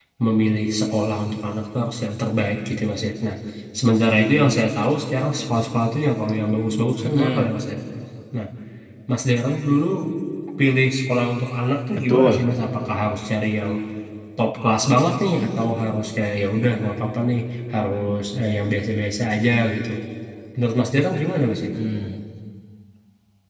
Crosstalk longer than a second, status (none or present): none